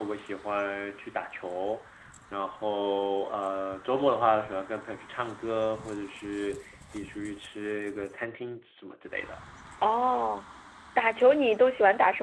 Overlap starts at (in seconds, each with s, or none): none